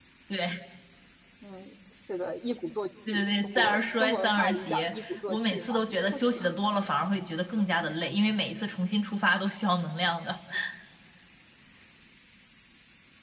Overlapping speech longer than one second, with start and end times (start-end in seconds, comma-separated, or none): 3.1-5.8